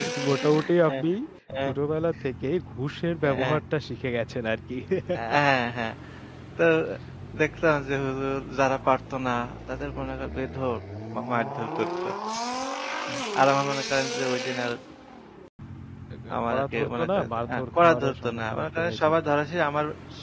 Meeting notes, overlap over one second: present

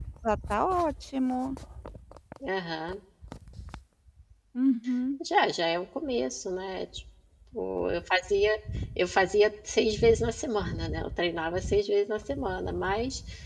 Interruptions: none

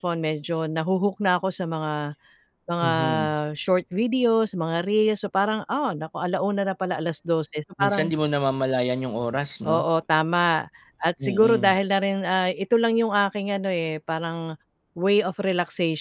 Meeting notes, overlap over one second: none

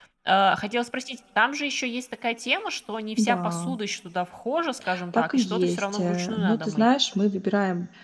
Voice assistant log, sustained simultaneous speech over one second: present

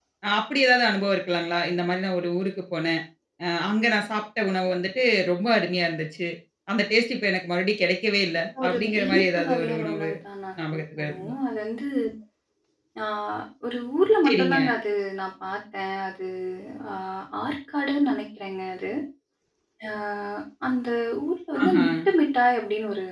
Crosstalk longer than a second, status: present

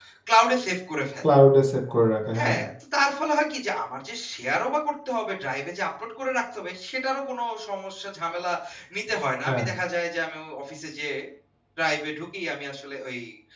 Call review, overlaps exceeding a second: none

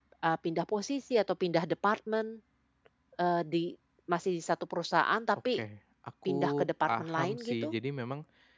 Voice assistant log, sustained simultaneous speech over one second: present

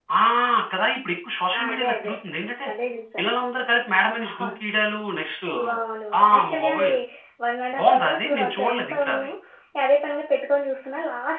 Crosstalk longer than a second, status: present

